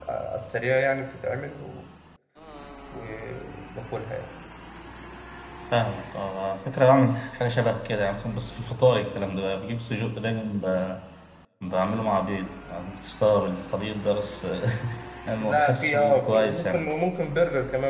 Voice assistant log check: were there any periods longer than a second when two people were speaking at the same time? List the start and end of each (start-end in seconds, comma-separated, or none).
15.4-16.8